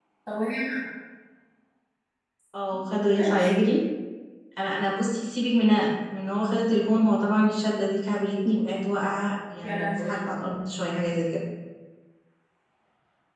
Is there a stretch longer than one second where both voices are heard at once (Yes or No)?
No